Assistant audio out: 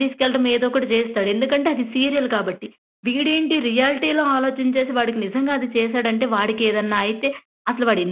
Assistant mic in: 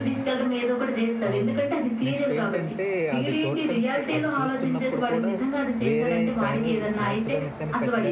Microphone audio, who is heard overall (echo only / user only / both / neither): both